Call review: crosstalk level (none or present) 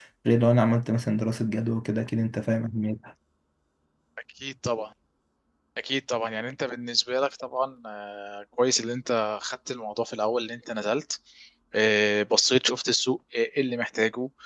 none